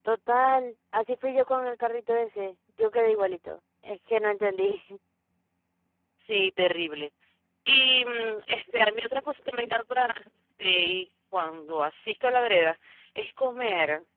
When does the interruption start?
none

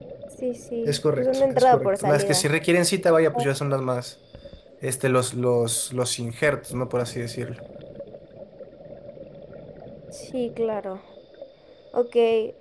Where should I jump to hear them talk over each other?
0.8 s

